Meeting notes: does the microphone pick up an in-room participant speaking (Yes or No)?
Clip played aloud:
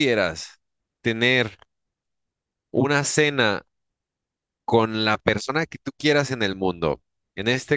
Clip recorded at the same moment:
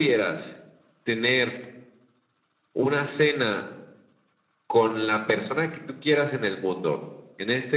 No